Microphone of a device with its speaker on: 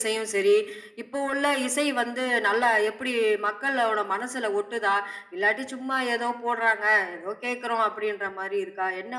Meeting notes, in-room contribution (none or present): none